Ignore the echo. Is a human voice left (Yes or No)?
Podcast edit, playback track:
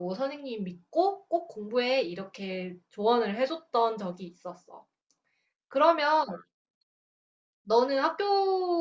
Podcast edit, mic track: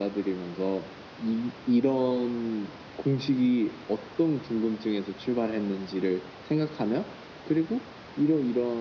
Yes